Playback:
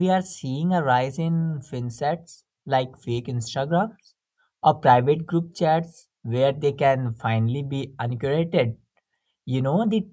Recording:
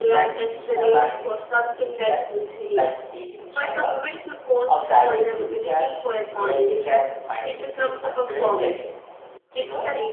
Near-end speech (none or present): present